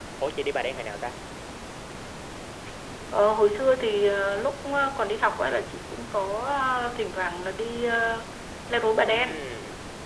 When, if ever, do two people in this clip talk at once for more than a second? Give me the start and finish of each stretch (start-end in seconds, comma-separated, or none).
none